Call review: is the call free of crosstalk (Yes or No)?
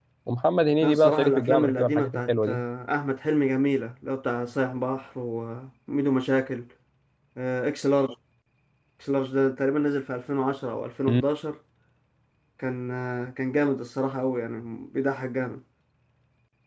No